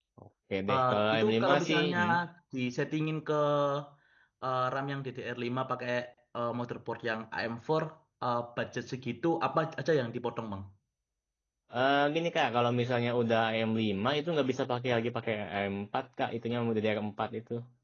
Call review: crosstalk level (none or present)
present